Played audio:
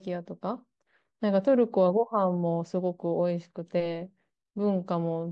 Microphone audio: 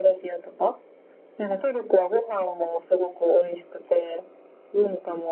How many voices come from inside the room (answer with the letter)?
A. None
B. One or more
A